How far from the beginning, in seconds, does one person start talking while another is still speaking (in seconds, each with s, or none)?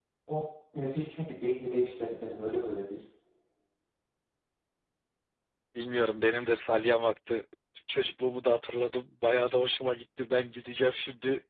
none